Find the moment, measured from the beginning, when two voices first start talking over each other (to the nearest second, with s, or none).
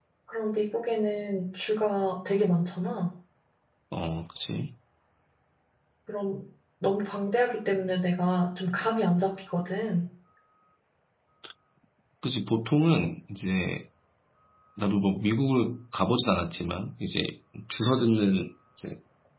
none